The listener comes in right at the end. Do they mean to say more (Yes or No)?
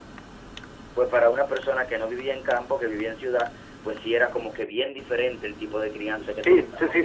Yes